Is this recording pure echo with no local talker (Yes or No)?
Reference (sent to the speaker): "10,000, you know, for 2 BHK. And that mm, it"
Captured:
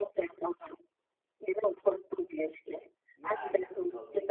No